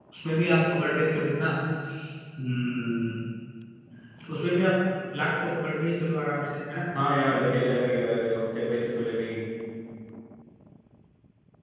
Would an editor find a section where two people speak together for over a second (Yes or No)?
No